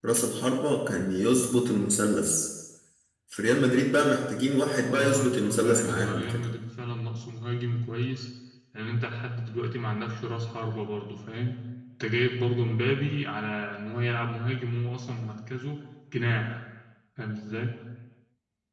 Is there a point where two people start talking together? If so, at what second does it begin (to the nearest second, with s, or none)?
5 s